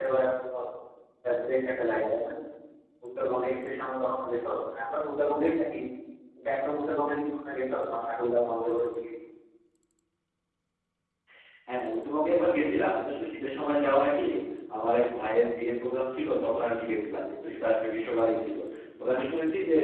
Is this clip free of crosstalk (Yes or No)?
Yes